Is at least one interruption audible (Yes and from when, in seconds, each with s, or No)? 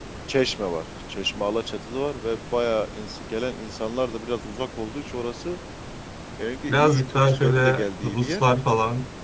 Yes, from 6.7 s